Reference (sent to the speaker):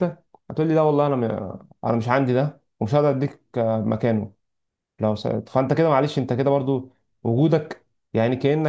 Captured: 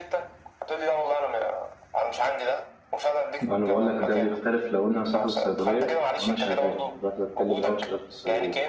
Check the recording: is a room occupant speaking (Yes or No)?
Yes